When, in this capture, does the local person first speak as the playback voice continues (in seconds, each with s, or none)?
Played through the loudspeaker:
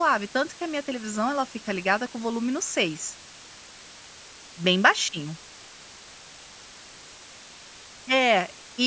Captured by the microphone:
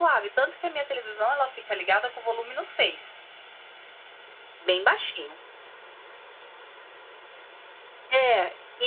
none